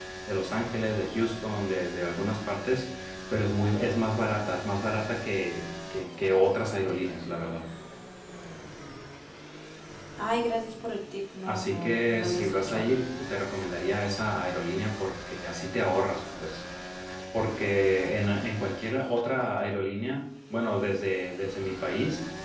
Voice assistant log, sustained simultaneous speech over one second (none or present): present